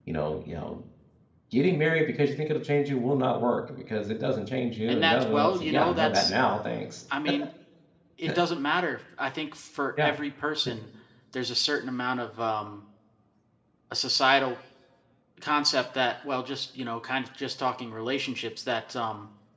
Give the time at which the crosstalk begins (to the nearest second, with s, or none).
5 s